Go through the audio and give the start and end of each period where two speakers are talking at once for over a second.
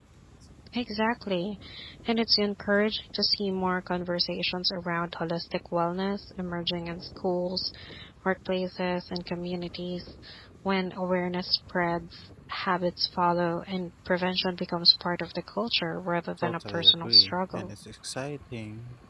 16.4-17.7

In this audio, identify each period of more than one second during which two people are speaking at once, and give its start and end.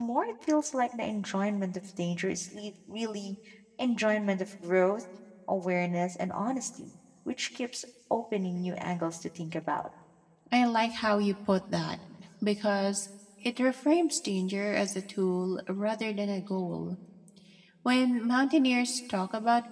none

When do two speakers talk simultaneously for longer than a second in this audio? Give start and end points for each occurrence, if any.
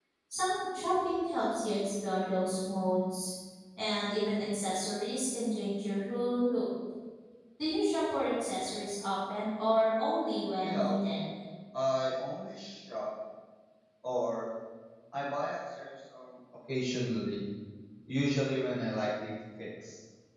none

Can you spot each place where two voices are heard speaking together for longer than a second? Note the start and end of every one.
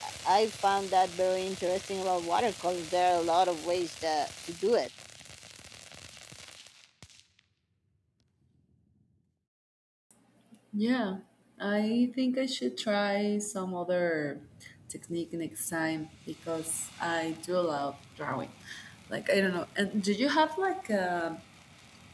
none

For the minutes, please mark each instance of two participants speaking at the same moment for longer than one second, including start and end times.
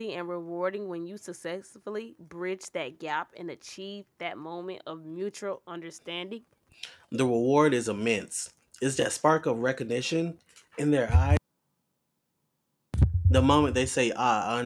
none

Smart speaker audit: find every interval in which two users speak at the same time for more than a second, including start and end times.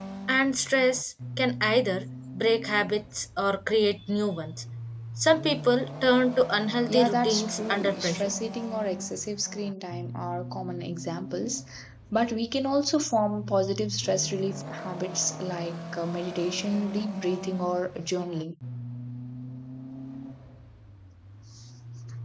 6.9-8.3

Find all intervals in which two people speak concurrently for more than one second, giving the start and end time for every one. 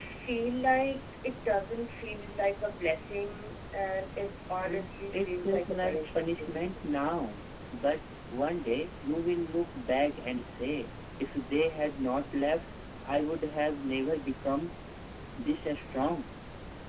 4.6-6.7

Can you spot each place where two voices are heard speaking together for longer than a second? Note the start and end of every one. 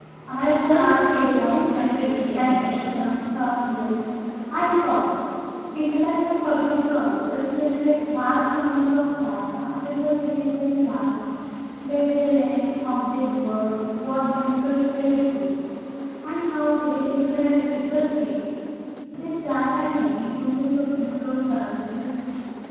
0.7-3.1

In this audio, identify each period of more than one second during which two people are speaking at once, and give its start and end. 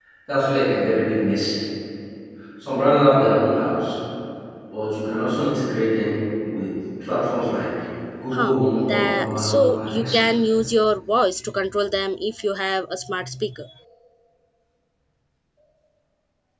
8.3-10.2

